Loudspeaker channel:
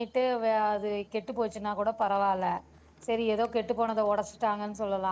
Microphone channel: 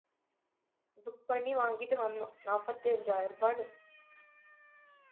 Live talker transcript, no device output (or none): புக் பண்ணி வாங்கிட் டு வந்தோ நாப்பத்தி அஞ்சாய்ருபானு